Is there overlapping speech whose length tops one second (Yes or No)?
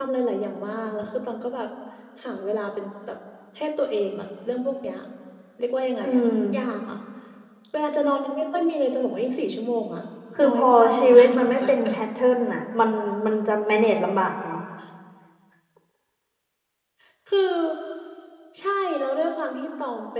Yes